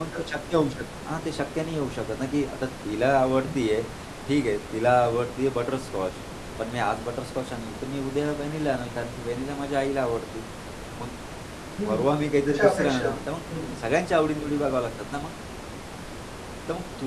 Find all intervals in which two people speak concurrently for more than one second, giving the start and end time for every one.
11.9-13.3

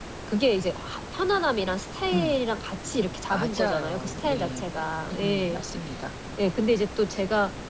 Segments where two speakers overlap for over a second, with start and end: 3.3-4.7

